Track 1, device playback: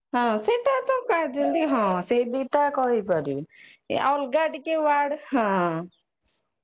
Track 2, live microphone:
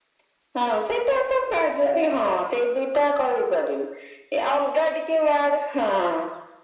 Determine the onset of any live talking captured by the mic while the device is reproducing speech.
none

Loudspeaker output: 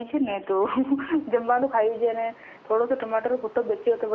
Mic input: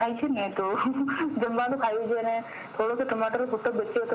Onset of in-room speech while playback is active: none

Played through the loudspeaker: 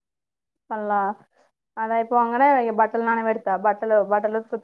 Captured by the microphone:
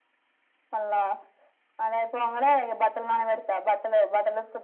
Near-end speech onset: none

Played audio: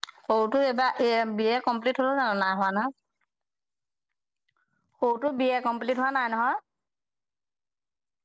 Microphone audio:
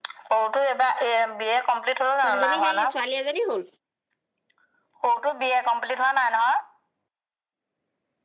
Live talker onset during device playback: 2.2 s

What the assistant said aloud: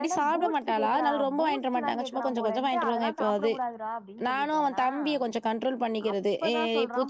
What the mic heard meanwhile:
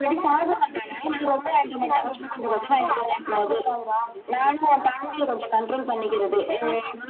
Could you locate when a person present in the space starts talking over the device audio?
none

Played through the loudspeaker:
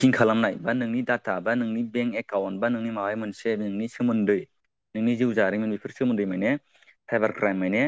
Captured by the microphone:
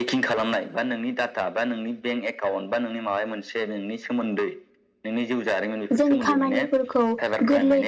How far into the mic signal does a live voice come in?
6.0 s

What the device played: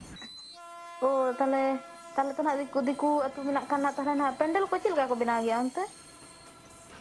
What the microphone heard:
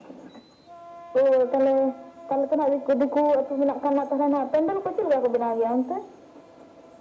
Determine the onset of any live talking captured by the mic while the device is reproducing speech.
none

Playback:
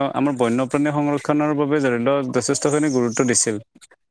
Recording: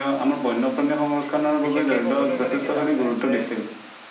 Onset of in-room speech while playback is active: 1.6 s

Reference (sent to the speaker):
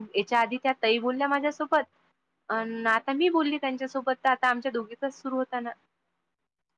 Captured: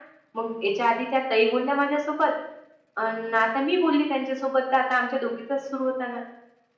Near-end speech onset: none

